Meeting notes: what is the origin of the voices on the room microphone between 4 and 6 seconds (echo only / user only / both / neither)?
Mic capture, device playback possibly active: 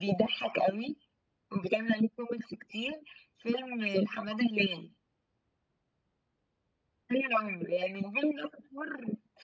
echo only